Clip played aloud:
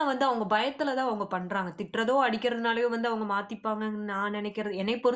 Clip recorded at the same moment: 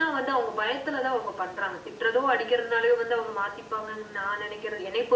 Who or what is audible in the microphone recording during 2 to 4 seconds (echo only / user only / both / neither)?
echo only